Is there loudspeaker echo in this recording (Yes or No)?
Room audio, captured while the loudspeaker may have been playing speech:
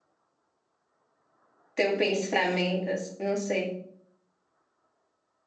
No